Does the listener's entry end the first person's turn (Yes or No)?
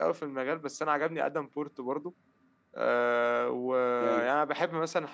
No